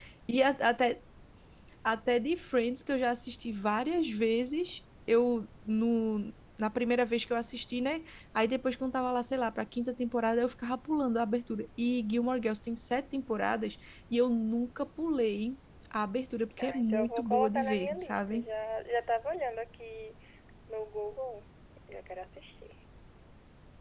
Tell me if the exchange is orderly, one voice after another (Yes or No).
No